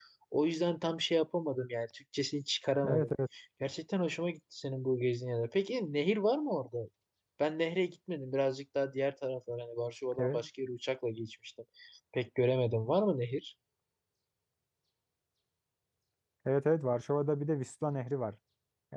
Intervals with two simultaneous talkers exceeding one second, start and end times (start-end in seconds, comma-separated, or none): none